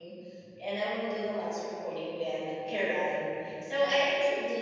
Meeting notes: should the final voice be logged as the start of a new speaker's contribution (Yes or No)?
No